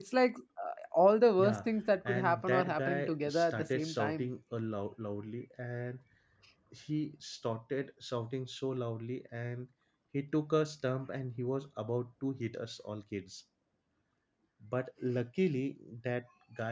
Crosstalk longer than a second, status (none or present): present